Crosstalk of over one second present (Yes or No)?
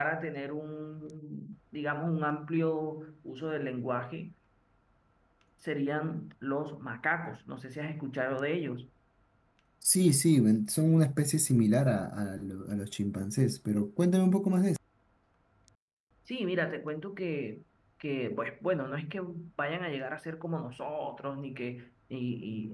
No